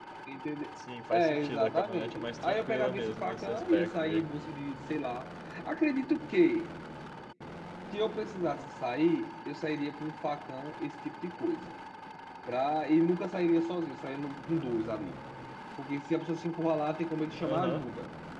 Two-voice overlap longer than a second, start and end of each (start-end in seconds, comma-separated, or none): 1.1-4.3